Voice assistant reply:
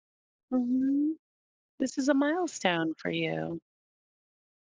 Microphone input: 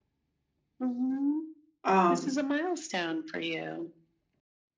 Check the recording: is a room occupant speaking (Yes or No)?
Yes